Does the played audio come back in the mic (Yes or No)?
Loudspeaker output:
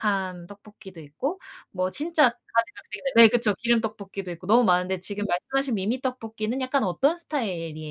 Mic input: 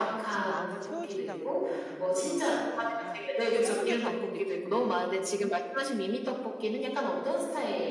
Yes